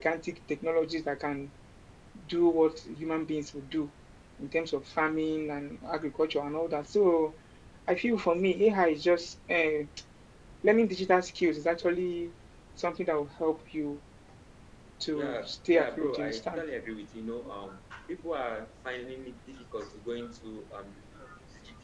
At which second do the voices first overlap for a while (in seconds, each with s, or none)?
15.1 s